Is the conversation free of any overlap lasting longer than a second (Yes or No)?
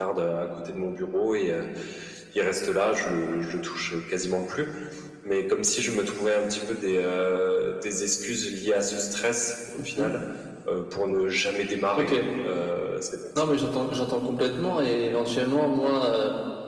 Yes